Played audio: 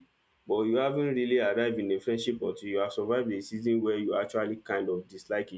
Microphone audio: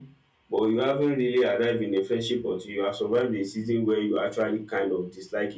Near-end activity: none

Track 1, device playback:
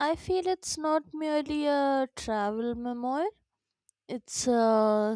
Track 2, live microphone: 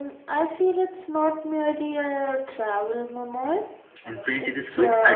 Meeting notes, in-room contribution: present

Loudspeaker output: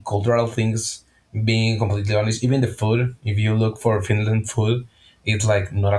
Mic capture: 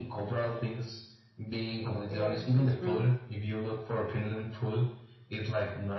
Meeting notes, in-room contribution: present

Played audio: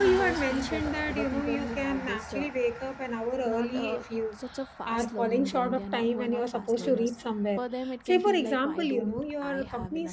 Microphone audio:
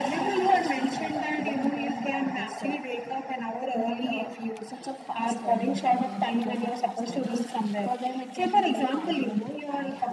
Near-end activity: none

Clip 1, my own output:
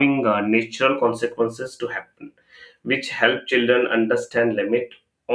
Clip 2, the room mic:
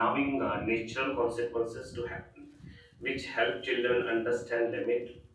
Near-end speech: none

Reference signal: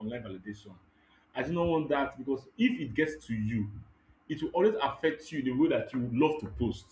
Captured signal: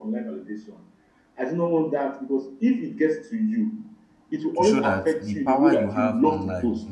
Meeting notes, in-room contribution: present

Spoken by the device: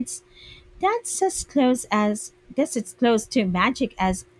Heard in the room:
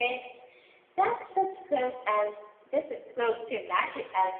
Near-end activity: none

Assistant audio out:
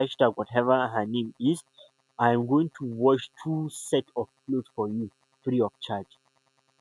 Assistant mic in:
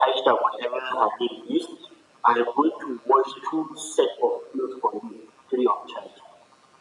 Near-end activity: none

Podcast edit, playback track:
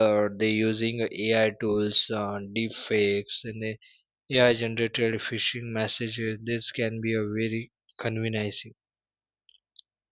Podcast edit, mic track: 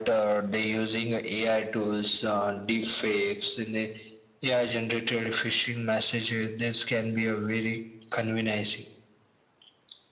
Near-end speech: none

